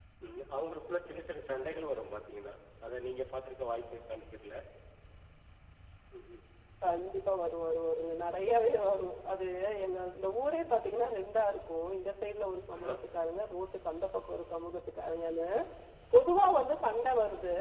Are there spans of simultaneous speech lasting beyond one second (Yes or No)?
No